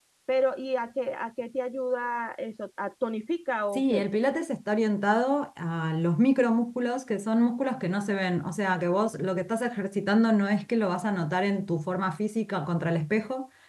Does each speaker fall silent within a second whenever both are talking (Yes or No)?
Yes